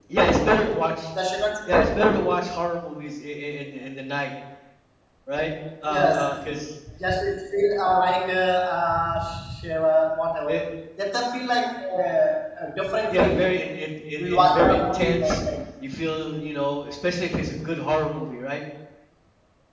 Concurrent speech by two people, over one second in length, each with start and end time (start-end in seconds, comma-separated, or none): 14.2-15.4